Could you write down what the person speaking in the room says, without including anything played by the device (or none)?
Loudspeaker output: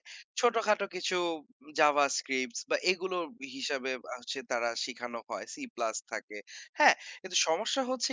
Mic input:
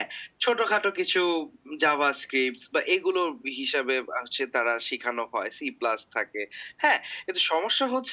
none